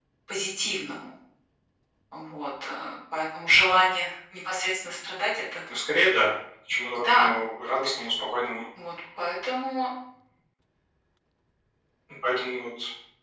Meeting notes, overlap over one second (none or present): none